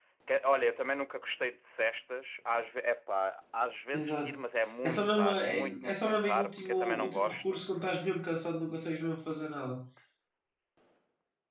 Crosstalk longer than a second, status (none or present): present